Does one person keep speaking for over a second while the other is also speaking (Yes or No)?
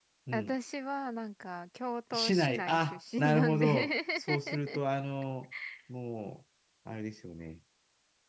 Yes